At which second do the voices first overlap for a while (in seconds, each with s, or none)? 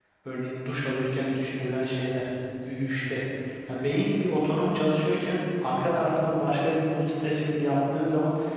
none